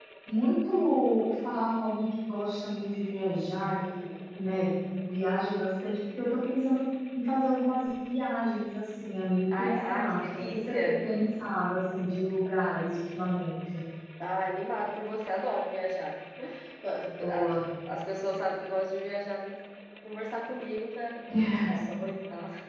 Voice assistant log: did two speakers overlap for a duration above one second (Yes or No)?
Yes